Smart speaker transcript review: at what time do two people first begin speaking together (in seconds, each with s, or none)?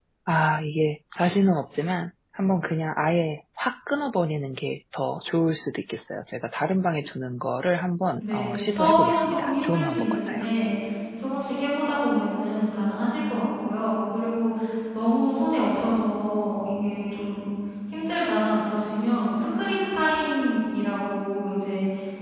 8.2 s